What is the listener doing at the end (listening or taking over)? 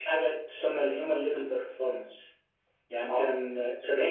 listening